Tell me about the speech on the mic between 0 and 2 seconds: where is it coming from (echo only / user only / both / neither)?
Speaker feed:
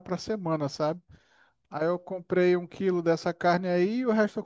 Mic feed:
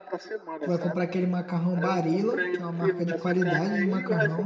both